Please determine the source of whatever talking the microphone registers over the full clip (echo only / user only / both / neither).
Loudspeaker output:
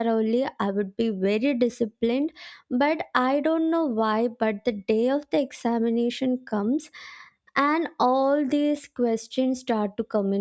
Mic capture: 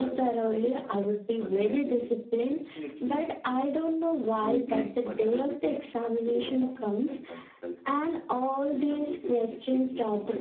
both